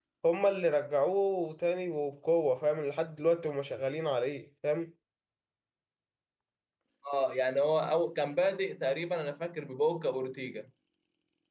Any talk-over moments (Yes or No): No